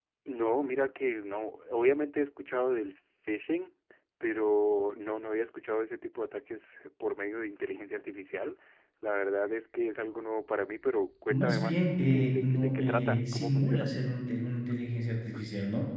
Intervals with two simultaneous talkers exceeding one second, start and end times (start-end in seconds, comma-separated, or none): 11.3-13.9